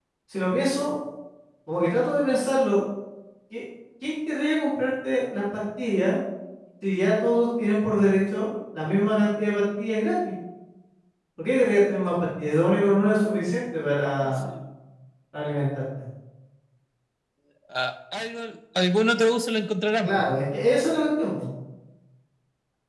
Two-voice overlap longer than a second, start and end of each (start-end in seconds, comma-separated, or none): none